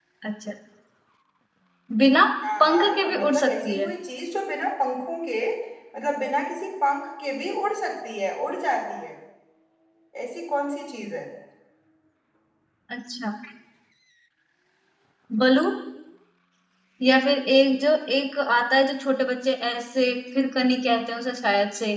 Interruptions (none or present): present